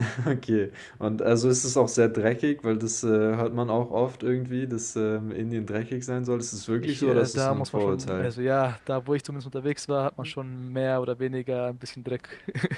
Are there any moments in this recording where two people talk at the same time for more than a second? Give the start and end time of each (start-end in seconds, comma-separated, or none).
6.8-8.3